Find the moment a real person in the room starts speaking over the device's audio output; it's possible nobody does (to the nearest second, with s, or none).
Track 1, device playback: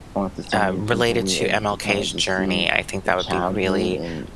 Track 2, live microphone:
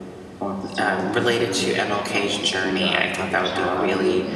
3 s